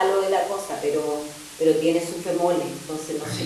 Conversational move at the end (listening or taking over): taking over